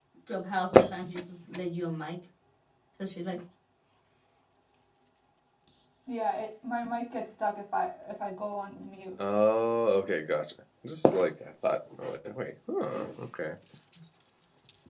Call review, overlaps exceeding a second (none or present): none